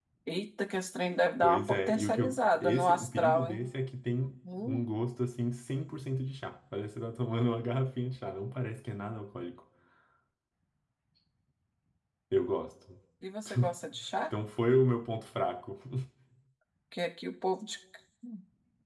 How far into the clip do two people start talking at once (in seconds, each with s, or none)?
1.4 s